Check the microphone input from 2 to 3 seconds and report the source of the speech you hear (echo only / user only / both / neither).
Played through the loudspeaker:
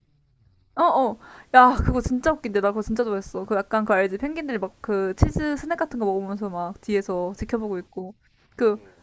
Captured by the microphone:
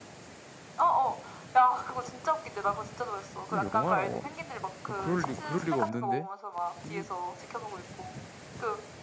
echo only